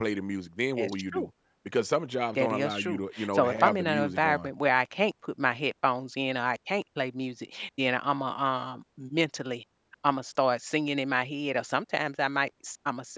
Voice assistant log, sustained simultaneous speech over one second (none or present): present